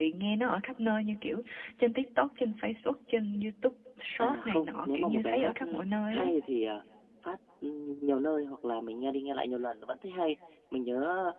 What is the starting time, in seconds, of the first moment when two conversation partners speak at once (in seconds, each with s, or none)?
4.2 s